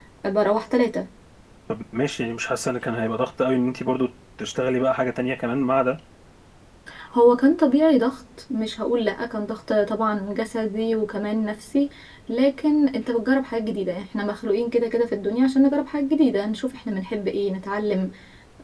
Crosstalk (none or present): none